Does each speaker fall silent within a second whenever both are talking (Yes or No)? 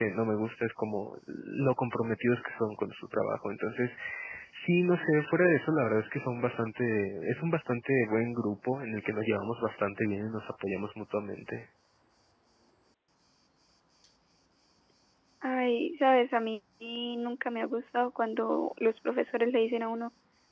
Yes